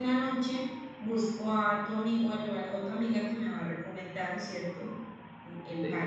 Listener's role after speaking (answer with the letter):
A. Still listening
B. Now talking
B